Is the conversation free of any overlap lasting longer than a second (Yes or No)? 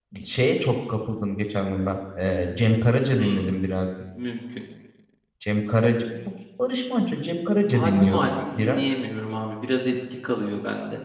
No